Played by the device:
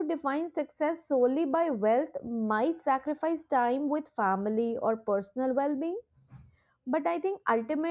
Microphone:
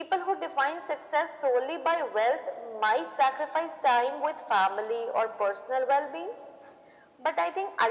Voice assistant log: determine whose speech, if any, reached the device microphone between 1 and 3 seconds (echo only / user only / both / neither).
echo only